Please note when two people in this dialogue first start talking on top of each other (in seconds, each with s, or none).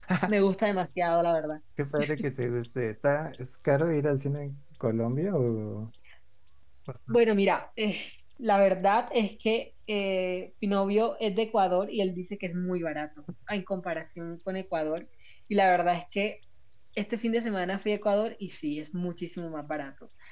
none